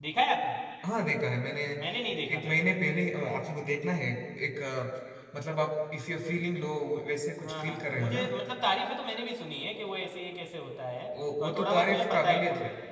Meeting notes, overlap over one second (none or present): present